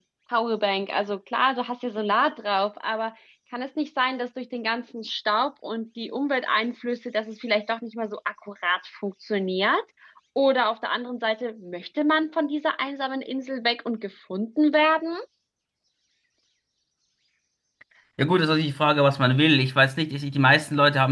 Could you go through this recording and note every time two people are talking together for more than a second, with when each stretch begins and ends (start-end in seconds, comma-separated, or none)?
none